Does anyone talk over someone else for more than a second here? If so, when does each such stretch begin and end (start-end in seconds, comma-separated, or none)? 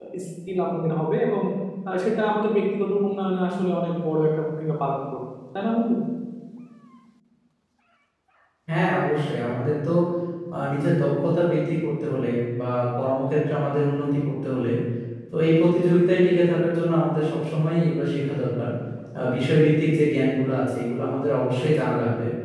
none